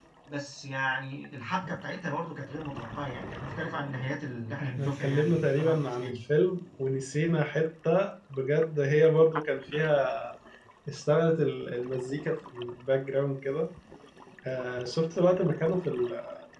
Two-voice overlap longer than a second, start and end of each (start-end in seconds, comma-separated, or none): 4.6-6.2